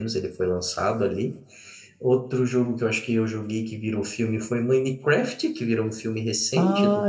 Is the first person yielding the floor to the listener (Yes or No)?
Yes